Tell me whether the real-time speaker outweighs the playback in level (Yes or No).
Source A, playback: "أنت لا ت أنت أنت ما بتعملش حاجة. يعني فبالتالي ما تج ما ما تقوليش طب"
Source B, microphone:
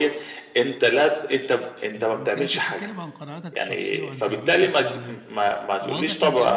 No